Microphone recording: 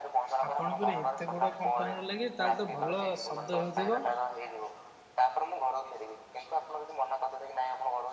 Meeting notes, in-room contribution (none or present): present